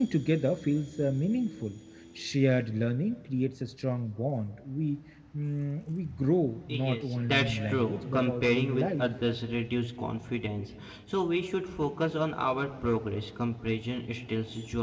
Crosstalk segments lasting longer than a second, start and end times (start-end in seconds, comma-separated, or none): 6.7-9.0